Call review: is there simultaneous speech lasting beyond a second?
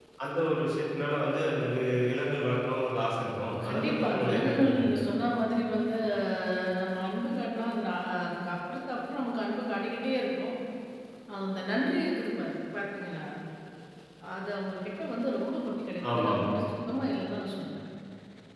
Yes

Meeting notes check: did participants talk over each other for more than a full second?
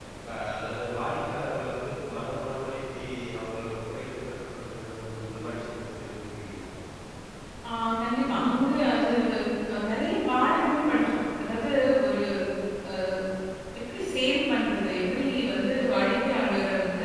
No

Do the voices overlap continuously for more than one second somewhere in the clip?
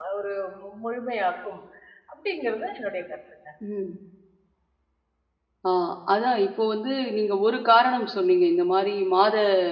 No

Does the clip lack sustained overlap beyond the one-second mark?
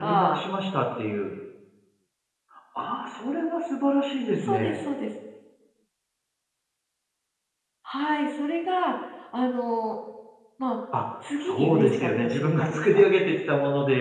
No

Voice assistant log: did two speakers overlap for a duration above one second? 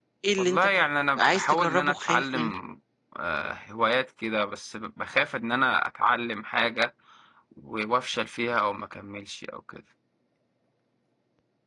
Yes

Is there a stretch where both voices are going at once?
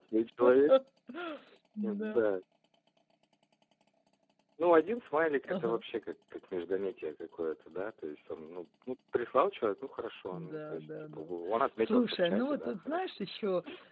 Yes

